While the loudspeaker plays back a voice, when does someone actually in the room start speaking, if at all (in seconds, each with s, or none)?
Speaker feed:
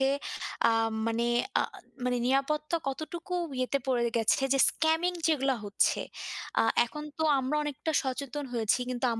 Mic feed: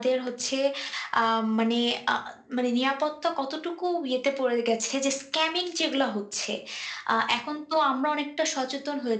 none